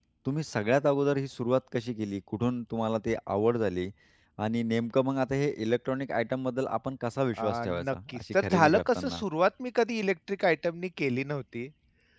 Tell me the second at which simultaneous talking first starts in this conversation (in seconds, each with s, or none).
7.4 s